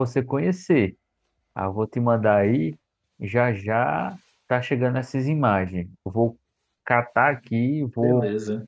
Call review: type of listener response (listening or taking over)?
listening